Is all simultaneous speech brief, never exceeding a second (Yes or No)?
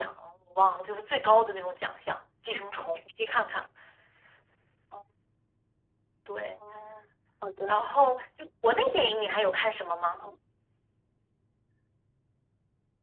Yes